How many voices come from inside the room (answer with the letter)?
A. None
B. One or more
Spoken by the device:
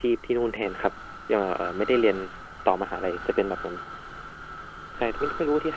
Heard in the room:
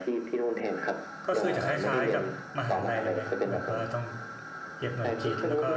B